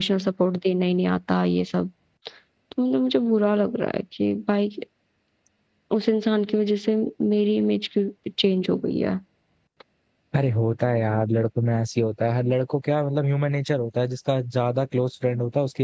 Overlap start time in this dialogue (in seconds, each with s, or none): none